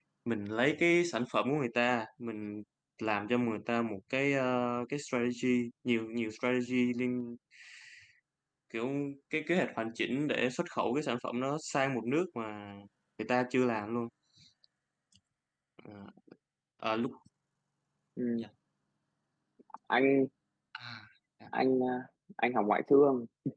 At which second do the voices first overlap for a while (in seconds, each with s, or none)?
none